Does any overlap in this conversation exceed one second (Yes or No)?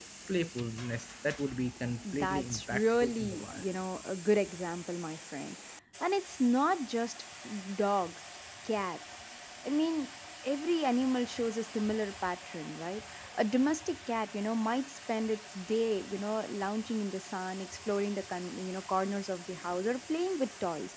Yes